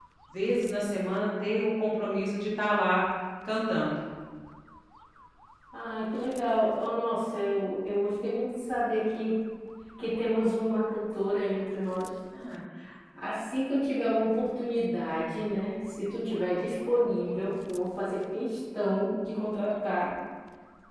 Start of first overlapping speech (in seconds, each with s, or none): none